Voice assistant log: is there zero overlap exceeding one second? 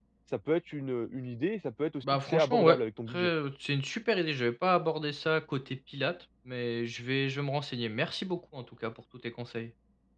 No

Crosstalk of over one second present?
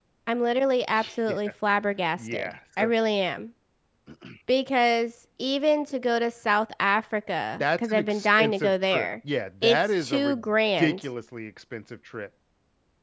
Yes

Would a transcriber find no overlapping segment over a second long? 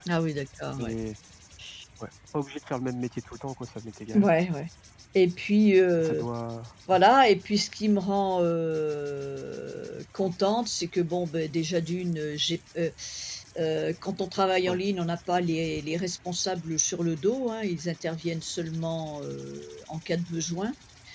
Yes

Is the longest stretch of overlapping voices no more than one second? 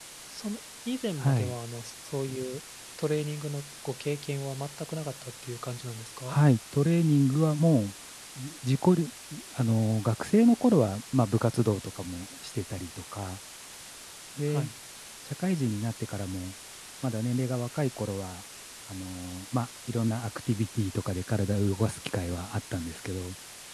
Yes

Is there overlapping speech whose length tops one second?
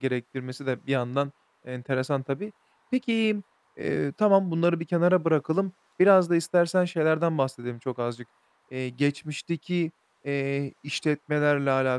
No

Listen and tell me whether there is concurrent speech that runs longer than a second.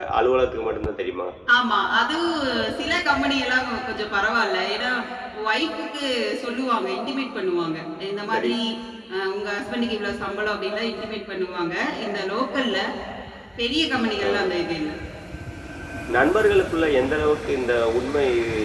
No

